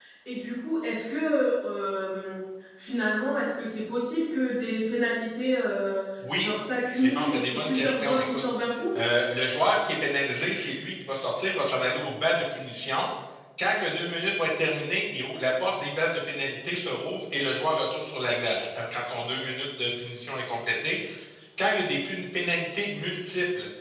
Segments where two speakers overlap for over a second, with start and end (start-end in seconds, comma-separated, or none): 6.9-8.4